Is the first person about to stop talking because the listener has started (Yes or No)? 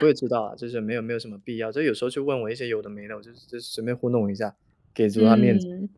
Yes